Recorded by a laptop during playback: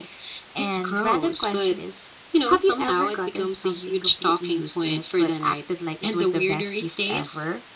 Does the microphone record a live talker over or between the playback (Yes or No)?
No